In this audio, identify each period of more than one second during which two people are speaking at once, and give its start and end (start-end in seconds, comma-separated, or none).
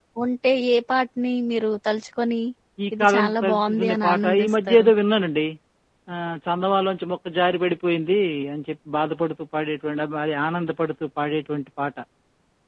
3.0-4.9